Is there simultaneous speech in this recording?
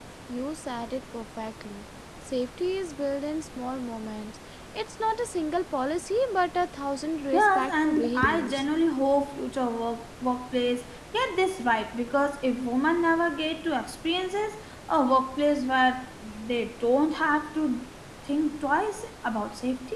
Yes, from 7.3 s

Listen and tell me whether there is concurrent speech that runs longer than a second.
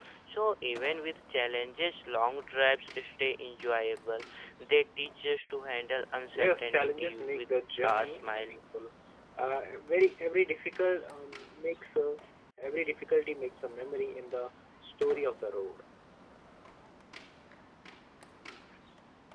Yes, from 6.4 s

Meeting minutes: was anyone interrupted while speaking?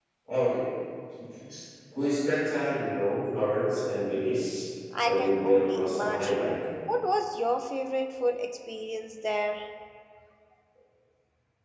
Yes, from 4.9 s

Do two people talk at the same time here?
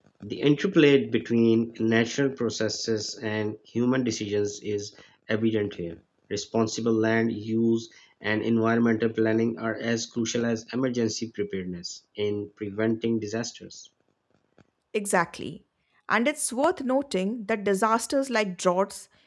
No

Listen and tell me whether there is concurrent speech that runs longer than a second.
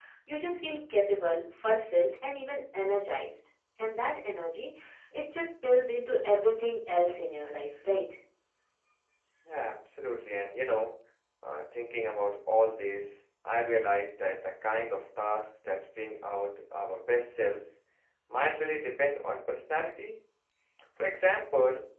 No

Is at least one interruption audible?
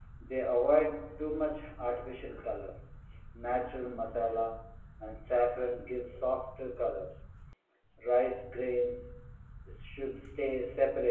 No

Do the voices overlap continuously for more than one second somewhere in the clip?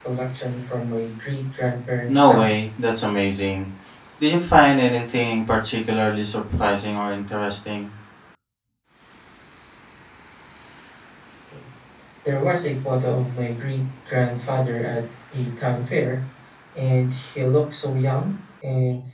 No

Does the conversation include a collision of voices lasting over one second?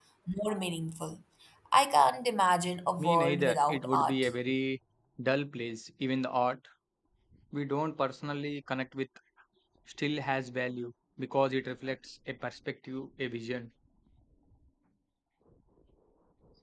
Yes, from 3.0 s

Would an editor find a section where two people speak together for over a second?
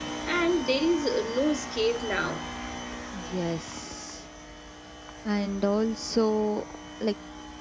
No

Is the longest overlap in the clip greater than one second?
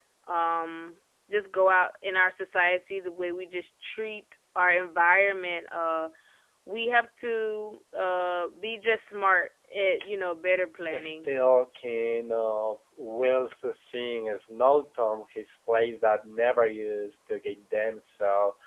No

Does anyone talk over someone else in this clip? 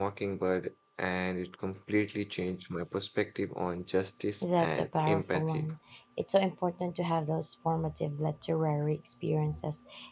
Yes, from 4.4 s

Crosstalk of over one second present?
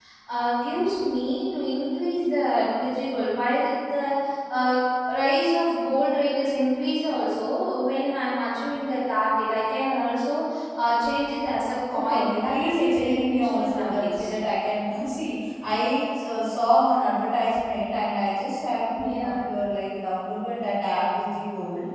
Yes, from 11.9 s

